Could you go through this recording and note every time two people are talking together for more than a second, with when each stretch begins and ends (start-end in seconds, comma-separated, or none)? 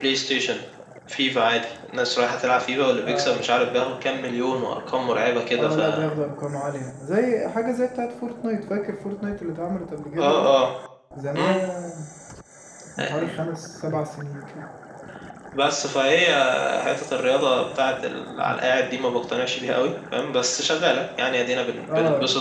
none